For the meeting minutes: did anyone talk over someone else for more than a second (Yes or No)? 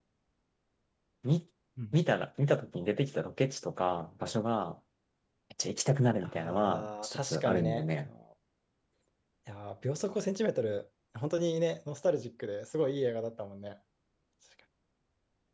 Yes